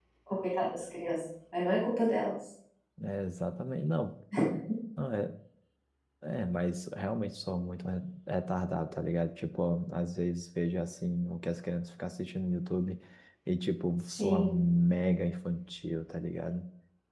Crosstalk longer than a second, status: none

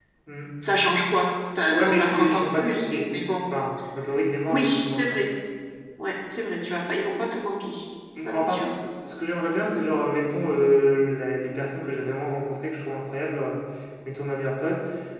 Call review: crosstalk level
present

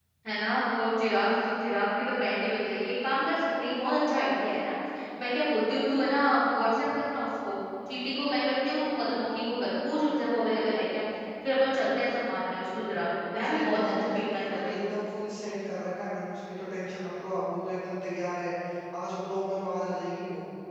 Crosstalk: present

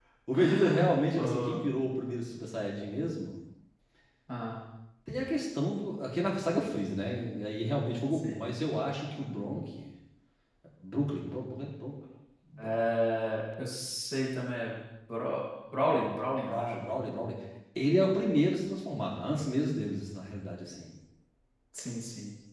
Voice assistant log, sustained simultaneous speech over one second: present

